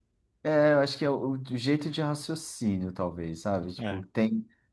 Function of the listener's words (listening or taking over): listening